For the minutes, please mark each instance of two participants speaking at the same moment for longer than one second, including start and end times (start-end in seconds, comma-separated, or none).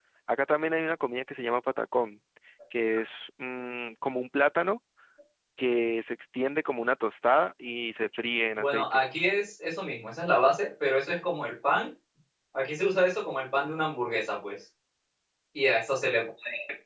none